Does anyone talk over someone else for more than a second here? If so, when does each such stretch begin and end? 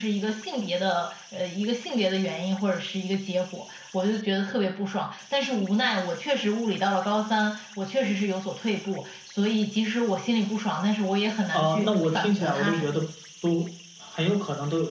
11.5-13.0

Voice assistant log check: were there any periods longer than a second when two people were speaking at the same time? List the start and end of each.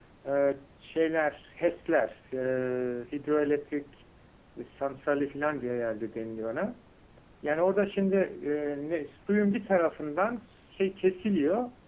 none

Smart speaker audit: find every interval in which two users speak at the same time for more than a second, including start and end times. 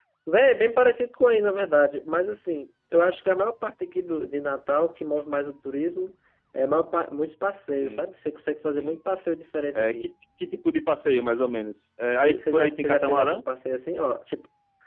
12.2-13.4

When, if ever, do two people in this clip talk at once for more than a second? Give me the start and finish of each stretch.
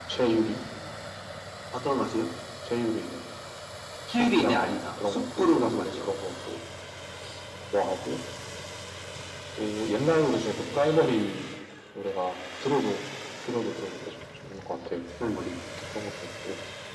4.1-6.0

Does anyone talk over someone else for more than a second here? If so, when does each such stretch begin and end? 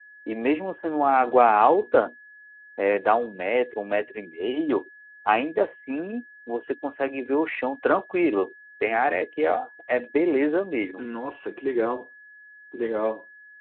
none

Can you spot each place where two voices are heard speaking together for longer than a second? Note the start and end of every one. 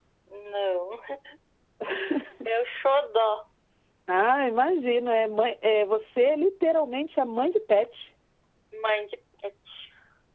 none

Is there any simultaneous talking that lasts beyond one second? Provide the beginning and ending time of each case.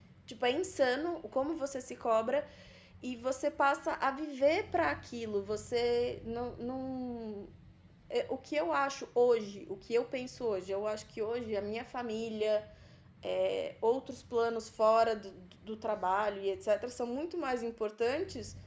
none

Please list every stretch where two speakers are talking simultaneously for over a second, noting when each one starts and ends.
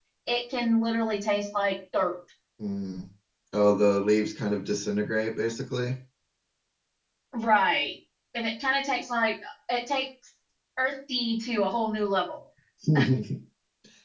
none

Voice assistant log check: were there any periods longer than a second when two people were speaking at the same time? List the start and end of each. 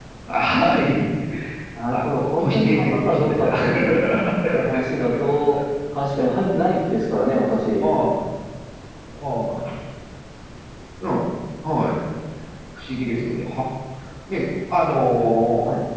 1.9-3.5

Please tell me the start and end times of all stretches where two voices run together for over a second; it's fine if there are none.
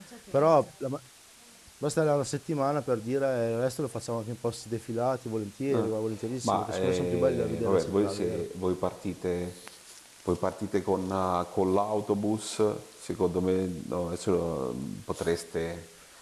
6.4-8.4

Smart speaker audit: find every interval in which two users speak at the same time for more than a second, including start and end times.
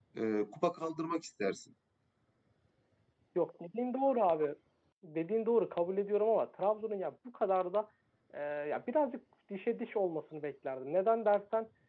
none

